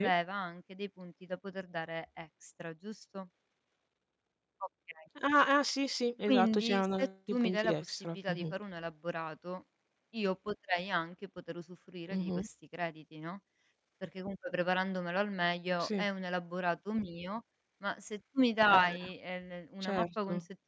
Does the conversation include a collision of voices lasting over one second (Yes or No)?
Yes